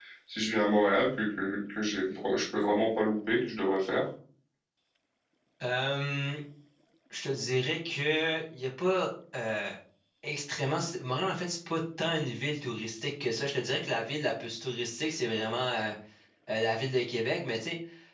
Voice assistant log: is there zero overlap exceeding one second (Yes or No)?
Yes